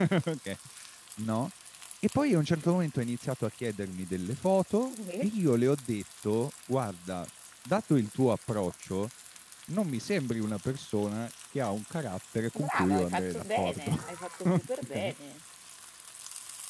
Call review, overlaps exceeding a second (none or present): present